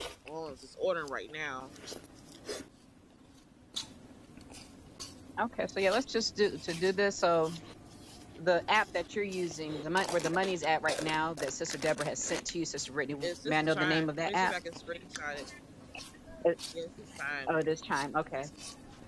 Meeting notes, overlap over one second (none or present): present